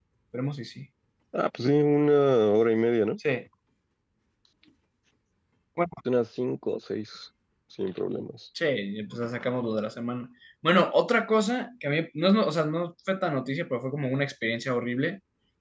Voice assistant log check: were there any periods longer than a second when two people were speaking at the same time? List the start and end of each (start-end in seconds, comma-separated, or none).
none